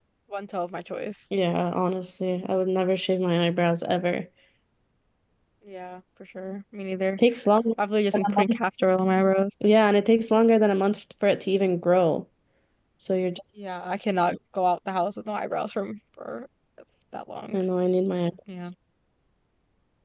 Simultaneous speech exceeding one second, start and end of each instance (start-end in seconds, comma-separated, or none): none